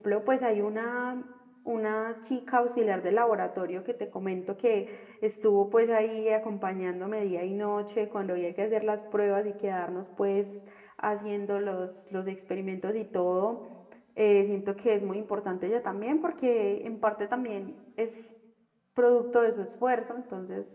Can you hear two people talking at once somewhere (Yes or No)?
No